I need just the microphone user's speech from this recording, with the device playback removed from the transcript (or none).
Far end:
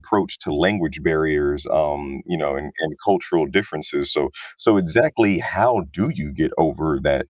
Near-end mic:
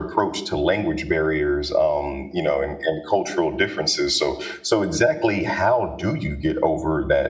none